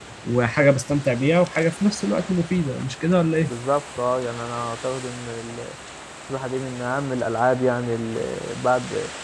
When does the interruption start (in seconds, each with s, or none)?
none